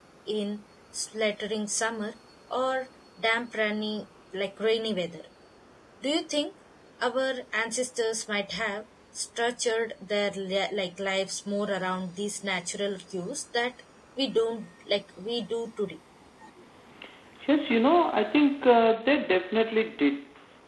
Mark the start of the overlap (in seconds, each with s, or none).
none